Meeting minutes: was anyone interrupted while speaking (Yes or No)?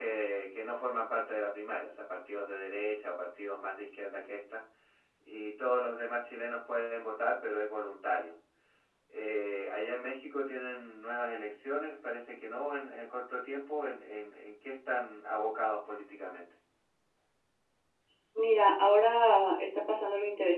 No